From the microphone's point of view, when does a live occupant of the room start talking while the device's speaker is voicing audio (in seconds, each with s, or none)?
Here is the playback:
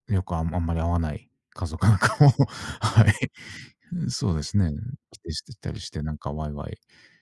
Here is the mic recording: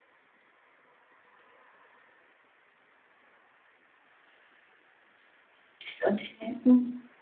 5.9 s